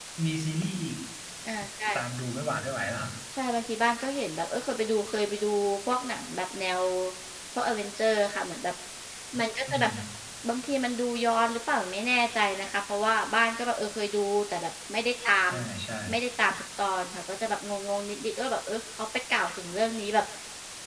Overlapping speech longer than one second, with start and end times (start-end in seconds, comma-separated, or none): none